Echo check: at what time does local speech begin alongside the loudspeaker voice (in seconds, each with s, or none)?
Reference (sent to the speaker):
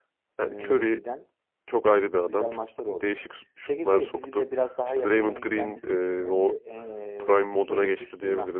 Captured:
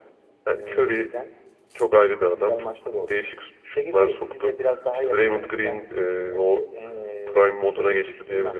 none